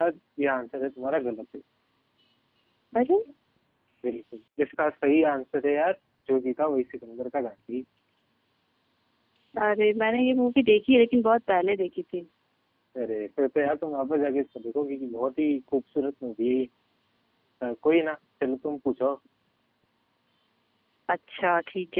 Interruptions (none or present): none